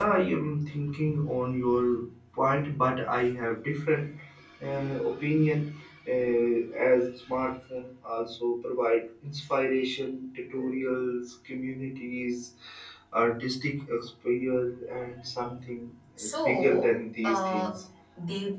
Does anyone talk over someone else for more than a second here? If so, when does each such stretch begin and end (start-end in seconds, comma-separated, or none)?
16.4-17.8